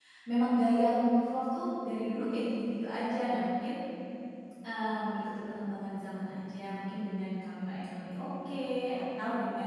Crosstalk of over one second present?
No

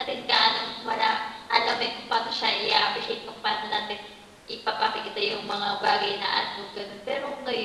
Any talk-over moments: No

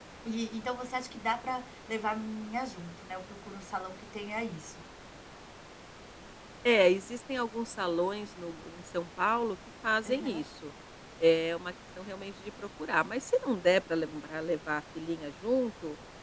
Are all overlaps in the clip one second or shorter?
Yes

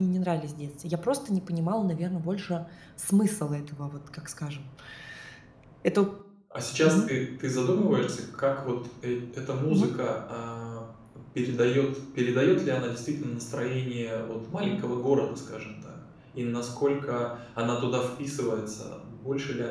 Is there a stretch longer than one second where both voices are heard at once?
No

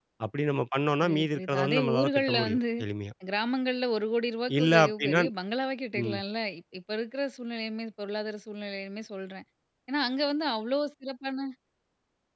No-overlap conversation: No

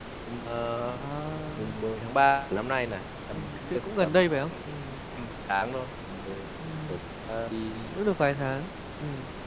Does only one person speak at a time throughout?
No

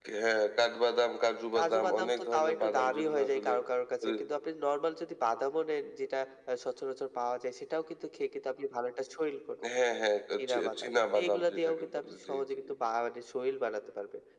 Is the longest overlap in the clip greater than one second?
Yes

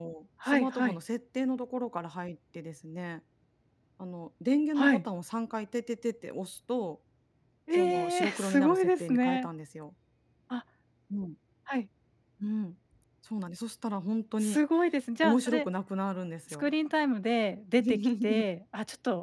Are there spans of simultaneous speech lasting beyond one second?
Yes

